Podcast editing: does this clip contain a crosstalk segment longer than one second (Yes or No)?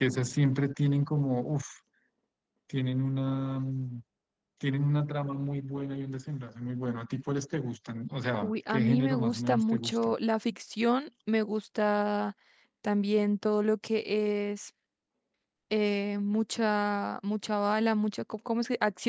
Yes